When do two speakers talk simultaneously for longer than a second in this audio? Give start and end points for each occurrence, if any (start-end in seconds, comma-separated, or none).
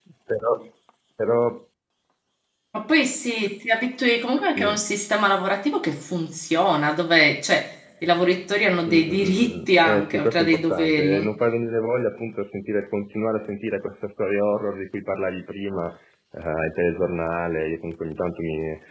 8.8-11.3